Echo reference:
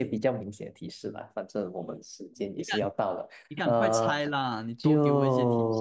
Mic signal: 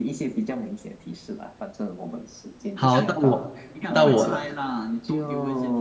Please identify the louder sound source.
user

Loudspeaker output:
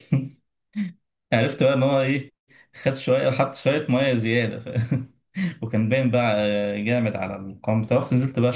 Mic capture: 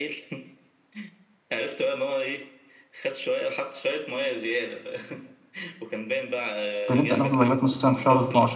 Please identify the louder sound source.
user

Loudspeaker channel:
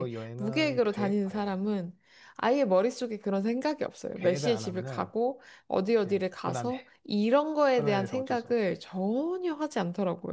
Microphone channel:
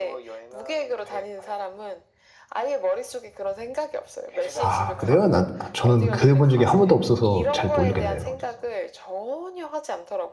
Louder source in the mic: user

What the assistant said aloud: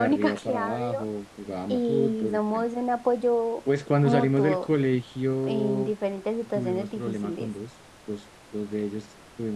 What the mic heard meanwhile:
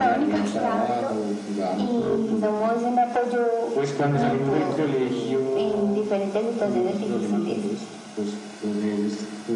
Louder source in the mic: echo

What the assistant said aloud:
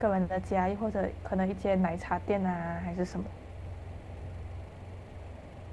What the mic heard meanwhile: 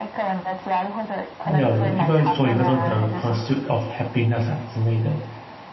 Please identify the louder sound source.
user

